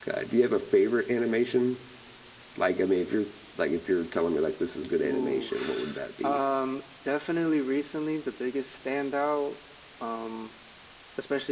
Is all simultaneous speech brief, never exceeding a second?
No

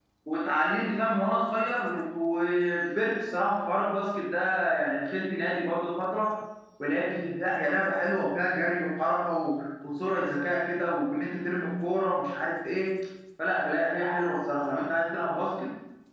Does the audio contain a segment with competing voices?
No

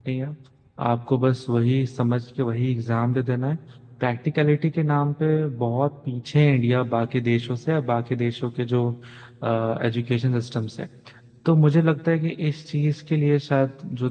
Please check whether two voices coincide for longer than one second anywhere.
No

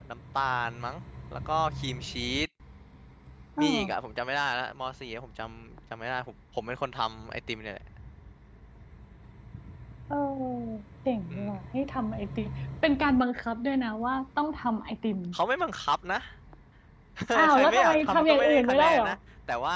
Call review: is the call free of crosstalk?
No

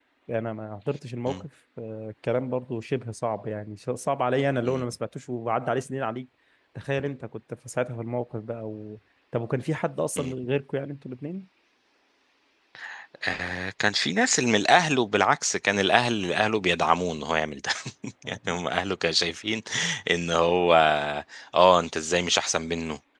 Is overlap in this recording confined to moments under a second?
Yes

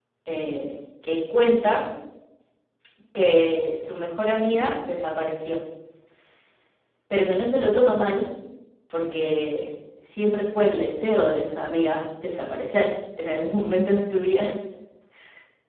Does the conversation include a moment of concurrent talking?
No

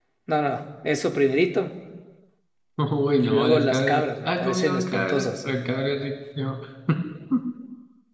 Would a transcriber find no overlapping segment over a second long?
No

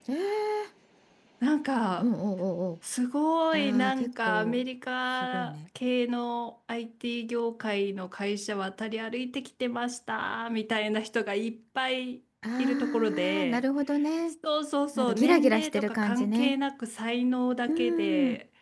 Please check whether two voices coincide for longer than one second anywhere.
Yes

